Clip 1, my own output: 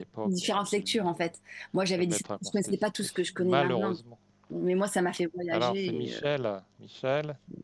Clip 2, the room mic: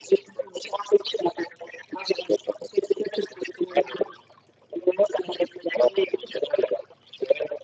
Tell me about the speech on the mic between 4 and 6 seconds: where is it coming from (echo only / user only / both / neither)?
echo only